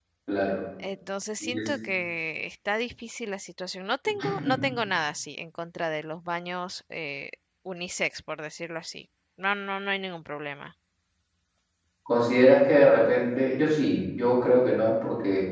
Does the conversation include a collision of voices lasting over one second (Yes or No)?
No